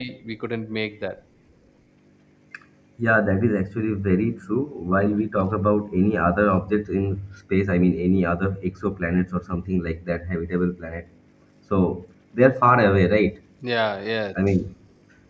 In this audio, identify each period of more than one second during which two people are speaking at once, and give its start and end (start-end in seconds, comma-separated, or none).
none